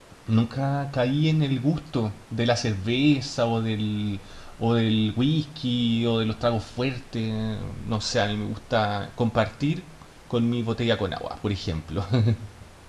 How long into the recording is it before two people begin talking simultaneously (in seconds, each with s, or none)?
none